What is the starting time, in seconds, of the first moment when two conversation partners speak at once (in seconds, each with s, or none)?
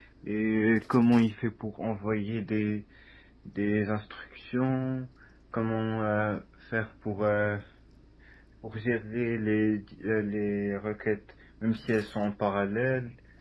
none